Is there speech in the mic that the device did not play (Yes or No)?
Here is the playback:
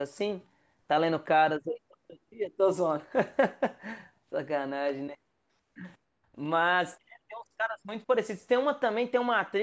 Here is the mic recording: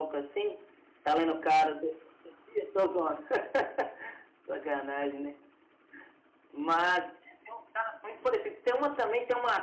No